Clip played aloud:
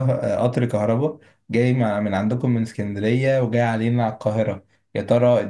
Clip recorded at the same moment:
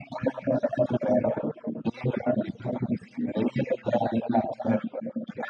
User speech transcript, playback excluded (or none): none